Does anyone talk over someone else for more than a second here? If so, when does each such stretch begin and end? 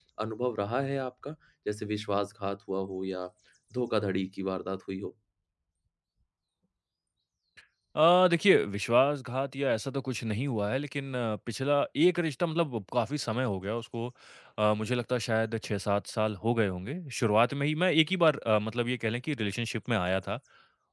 none

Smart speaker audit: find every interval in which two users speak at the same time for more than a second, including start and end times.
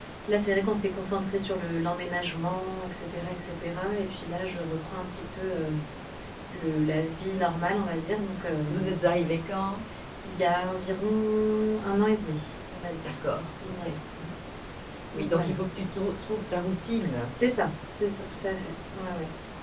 none

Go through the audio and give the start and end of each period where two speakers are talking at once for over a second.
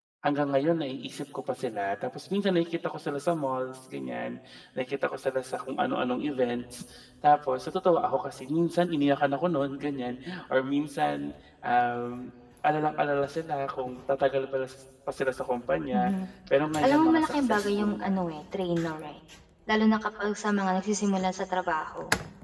16.8-18.1

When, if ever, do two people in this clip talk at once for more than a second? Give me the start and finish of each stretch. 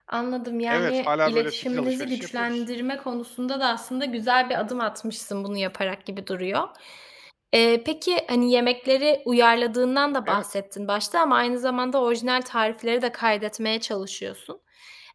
0.7-2.6

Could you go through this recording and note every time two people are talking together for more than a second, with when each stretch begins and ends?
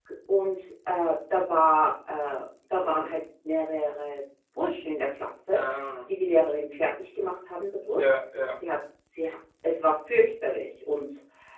none

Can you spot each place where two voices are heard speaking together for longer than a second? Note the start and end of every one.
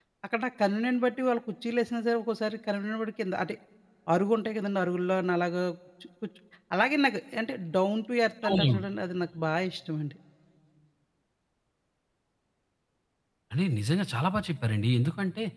none

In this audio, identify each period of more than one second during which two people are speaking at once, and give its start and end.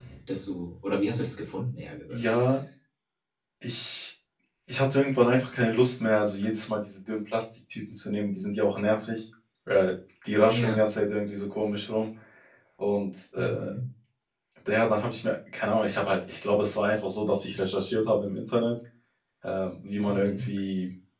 none

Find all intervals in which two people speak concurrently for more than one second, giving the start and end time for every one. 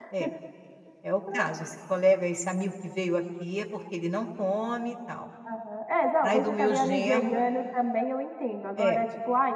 6.2-7.4

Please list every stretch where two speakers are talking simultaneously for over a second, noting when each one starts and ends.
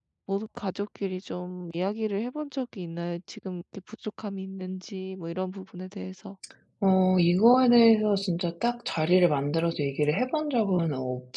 none

